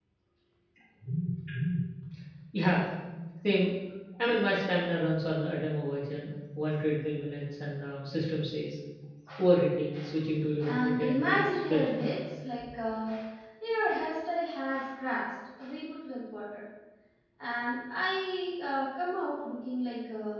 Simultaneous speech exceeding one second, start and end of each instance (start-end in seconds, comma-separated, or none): 10.6-12.2